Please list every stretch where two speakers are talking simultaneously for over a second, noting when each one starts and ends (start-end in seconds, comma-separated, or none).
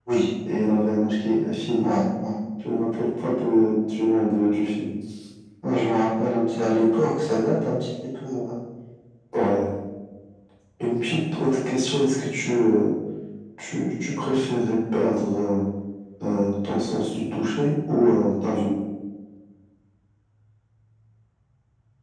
none